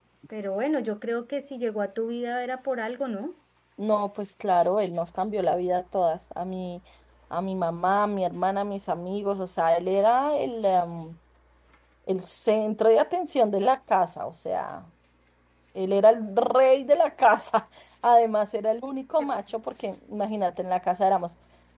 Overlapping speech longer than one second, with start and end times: none

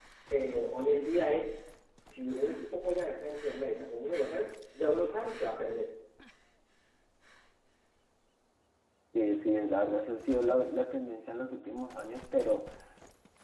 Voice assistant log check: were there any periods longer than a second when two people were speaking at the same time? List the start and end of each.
none

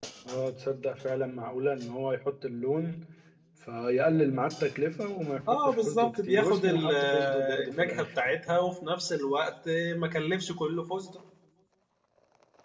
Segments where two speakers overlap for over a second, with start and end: 5.7-8.1

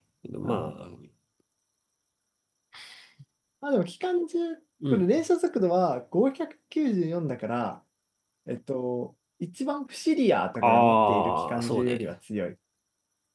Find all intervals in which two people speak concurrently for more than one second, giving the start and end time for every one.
10.6-12.0

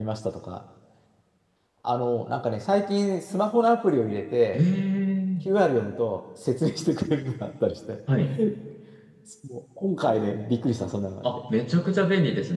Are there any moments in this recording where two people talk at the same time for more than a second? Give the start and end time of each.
none

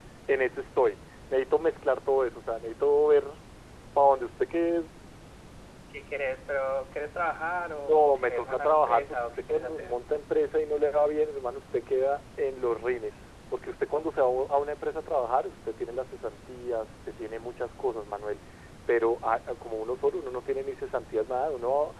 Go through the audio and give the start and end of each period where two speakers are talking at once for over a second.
7.8-9.9

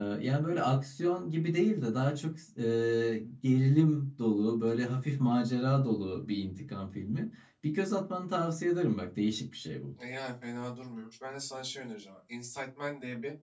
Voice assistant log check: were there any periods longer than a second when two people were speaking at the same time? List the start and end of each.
none

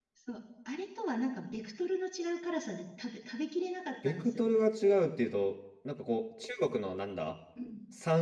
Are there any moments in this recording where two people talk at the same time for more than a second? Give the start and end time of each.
none

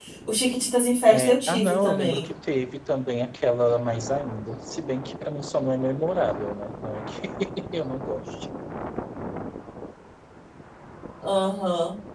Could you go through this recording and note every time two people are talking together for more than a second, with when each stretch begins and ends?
1.1-2.3

